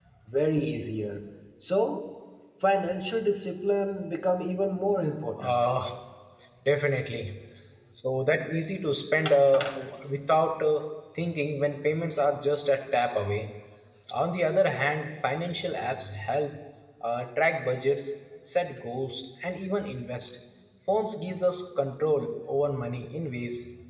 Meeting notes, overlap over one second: none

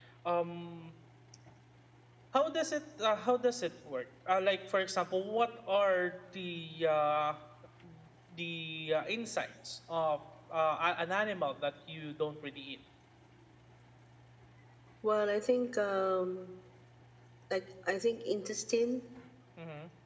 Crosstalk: none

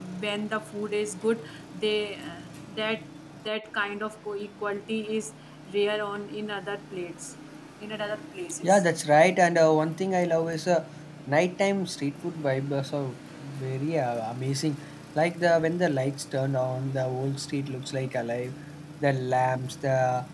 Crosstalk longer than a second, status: none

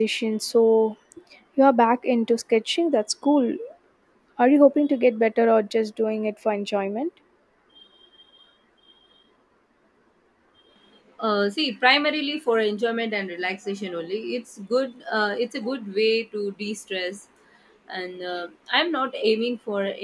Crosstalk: none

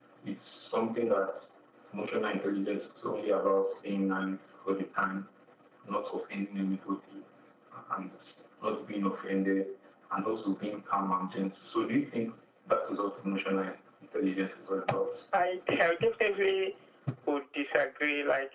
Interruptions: none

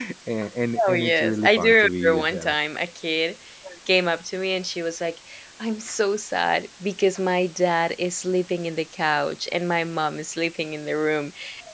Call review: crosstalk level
present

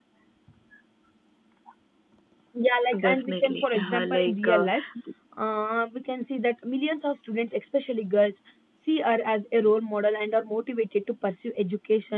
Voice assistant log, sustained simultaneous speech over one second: present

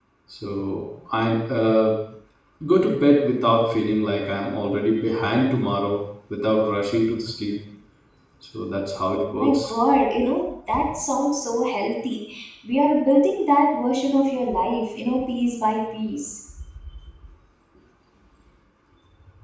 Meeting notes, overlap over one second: none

